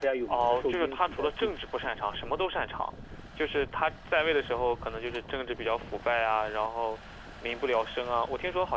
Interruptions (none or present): present